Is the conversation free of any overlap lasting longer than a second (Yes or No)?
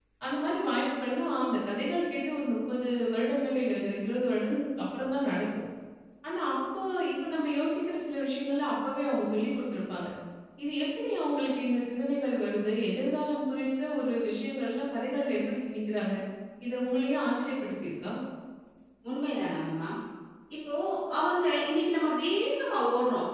Yes